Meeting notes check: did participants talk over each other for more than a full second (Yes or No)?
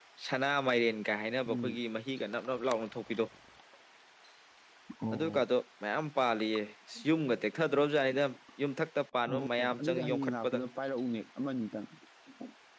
Yes